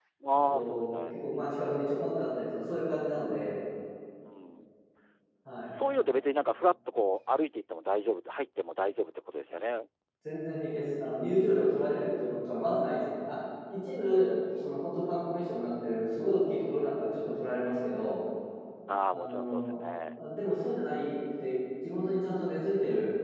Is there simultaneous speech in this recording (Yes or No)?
Yes